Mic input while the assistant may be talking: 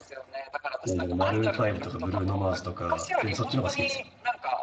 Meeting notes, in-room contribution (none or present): present